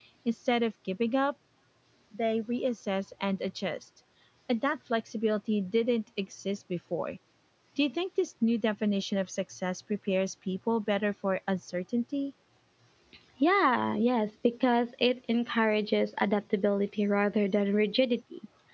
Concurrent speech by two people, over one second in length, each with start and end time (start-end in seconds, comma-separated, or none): none